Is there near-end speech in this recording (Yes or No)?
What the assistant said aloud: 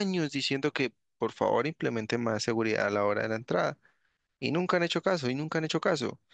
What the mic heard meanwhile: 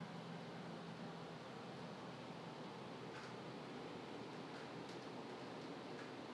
No